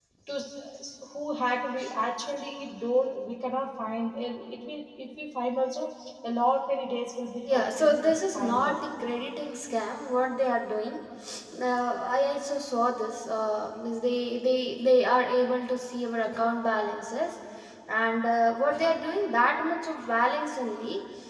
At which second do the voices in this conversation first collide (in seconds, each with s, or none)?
7.5 s